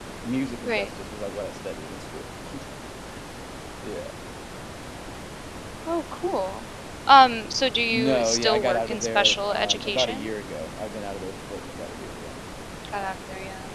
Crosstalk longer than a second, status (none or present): present